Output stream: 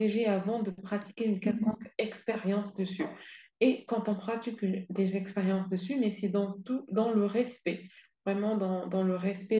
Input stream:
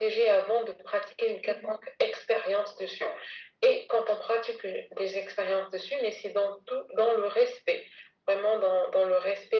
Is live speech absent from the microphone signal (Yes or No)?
Yes